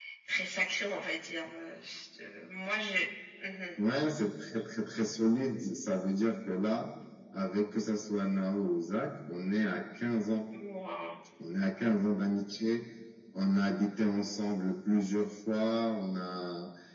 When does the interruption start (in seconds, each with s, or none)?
none